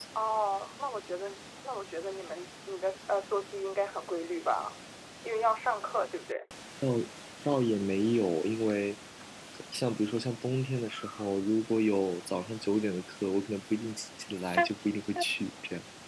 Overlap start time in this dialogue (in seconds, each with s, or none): none